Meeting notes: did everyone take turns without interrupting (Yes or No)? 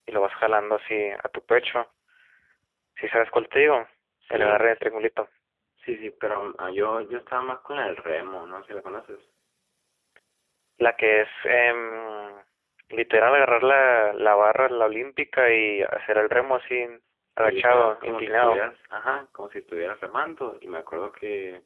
No